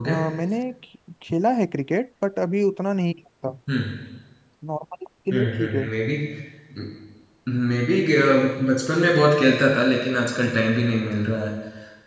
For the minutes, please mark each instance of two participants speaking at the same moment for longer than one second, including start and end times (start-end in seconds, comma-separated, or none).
none